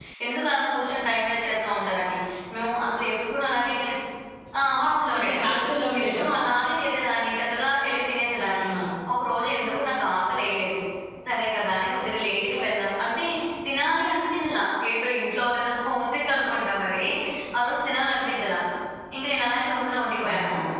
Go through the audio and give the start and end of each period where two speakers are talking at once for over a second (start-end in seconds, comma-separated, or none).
none